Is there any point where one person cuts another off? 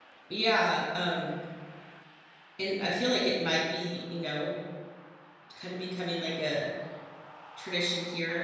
No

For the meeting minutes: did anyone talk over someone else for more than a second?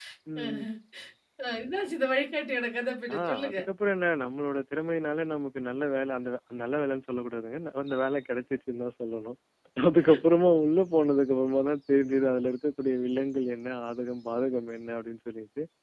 No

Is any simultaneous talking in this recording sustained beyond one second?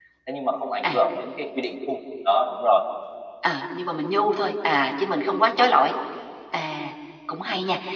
No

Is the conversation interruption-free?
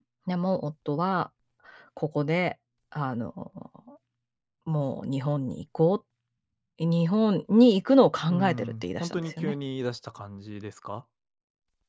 No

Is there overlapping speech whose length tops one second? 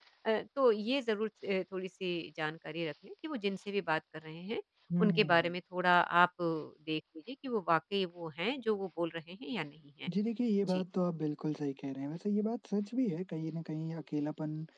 No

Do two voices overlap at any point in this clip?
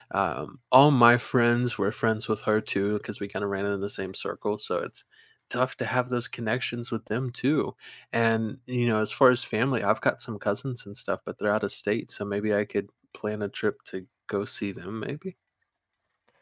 No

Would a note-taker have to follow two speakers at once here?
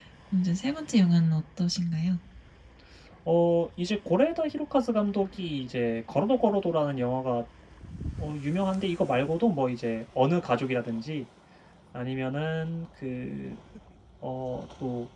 No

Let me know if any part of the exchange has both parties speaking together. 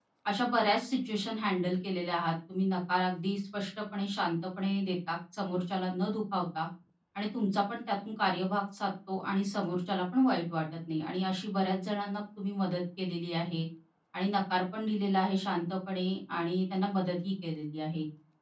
No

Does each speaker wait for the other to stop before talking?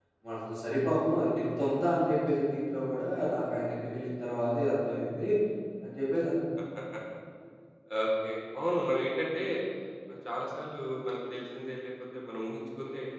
Yes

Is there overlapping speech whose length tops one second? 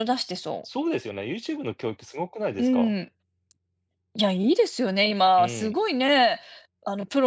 No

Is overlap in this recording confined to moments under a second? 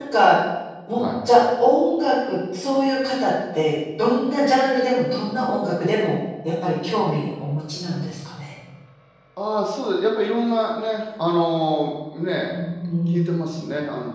Yes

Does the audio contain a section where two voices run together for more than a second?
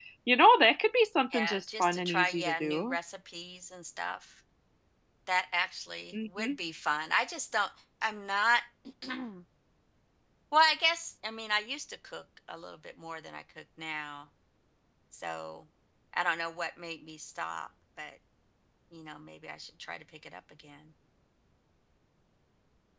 Yes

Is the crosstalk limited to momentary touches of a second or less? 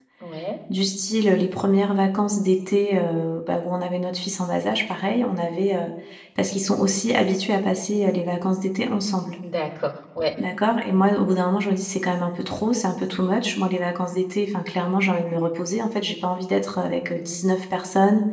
Yes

